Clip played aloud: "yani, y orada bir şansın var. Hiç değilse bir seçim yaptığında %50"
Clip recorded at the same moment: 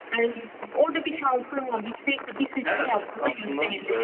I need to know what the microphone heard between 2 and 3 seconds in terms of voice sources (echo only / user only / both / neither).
both